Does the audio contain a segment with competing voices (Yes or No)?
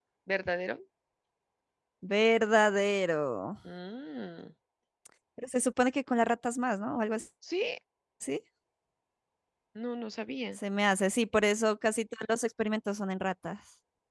No